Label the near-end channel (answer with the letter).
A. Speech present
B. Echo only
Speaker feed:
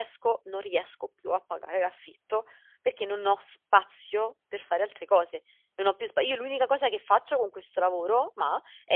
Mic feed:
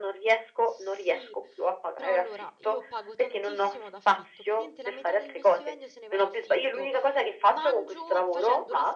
A